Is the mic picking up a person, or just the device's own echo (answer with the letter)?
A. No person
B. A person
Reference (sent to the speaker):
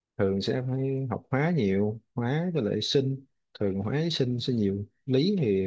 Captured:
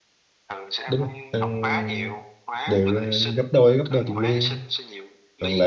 B